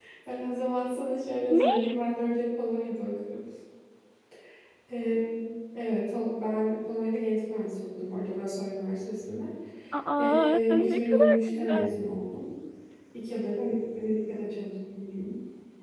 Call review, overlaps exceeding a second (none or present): present